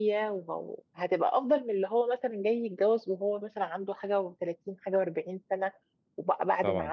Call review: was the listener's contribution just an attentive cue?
Yes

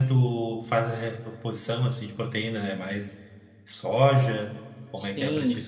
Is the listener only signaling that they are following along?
No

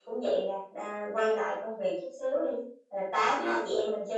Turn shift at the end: No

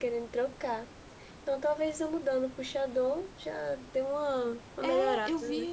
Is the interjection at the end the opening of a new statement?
Yes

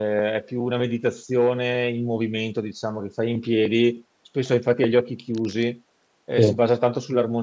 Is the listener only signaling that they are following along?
Yes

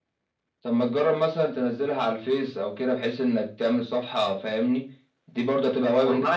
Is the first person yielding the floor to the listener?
Yes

